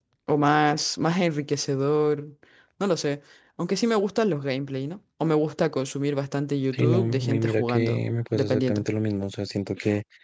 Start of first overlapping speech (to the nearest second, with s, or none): 7 s